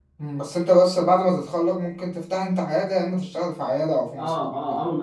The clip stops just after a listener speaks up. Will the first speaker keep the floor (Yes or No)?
No